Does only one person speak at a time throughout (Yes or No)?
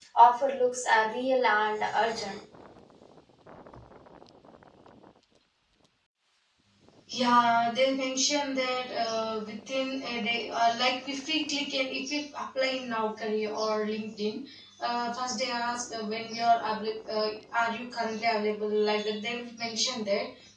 Yes